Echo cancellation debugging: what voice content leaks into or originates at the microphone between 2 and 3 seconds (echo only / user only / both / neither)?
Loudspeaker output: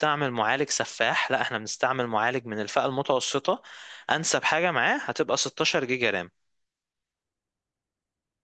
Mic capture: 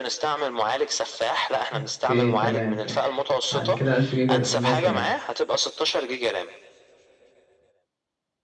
both